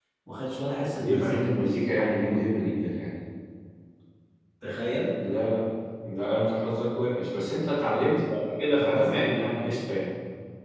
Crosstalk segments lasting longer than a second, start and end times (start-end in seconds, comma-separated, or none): none